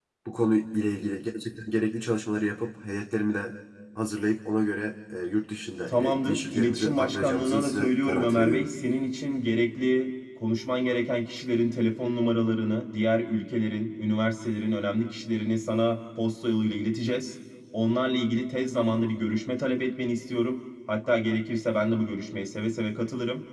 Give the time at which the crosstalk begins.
5.9 s

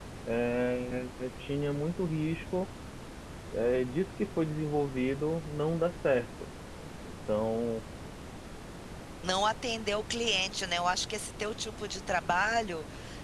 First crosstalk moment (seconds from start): none

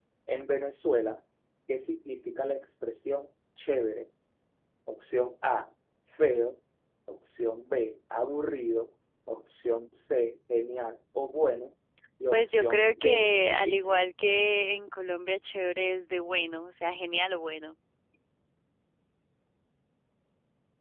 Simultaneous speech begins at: 12.3 s

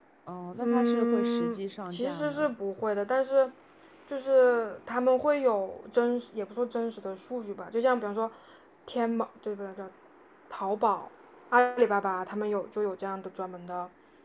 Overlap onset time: 0.6 s

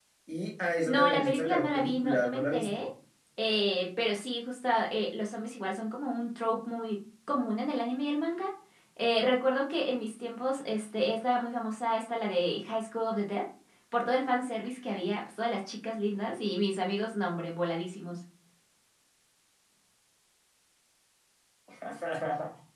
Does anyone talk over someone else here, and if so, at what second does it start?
0.9 s

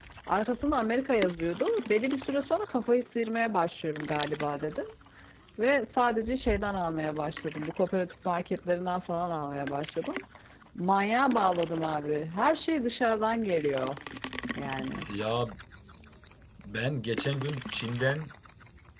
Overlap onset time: none

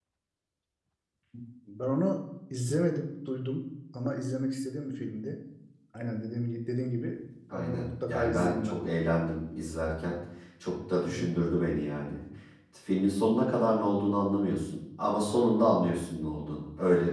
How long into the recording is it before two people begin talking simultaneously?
7.5 s

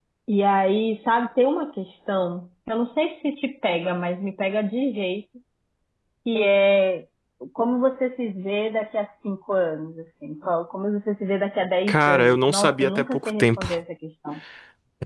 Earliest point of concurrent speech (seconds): 11.9 s

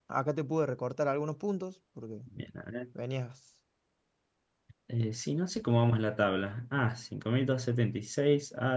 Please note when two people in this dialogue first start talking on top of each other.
none

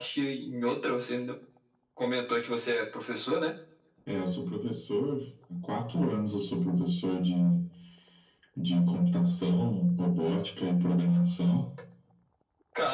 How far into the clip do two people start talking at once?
none

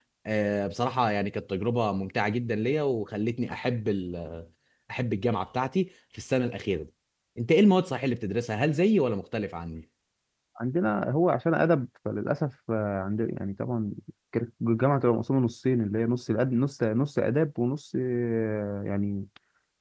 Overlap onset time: none

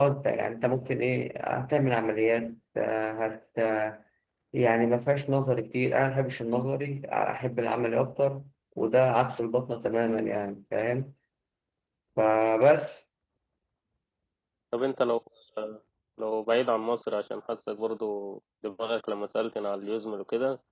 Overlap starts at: none

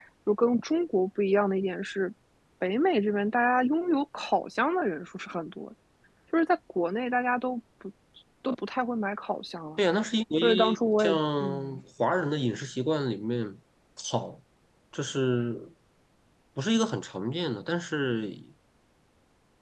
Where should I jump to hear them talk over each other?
10.4 s

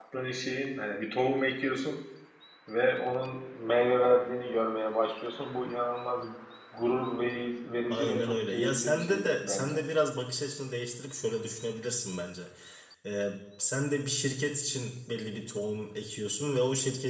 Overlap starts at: 7.9 s

